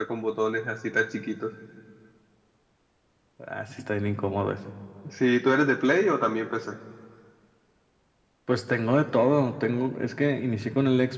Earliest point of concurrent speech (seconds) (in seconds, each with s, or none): none